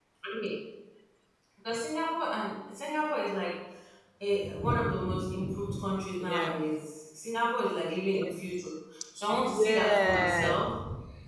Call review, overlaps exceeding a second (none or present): present